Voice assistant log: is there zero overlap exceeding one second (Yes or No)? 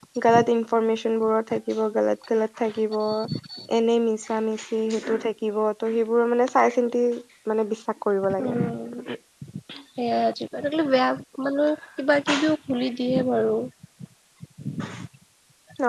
Yes